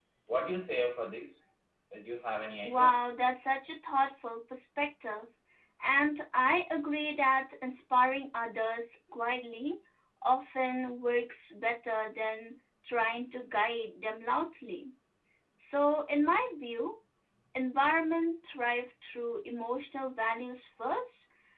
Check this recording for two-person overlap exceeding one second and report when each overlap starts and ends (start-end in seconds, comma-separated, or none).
none